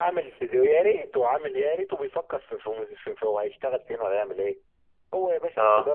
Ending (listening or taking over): listening